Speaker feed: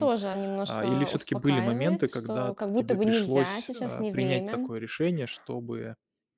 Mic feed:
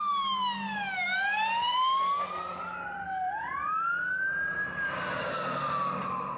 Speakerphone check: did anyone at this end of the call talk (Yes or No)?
No